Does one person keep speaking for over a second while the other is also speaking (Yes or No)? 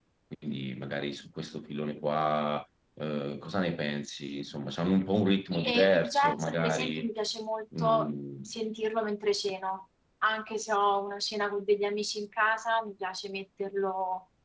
Yes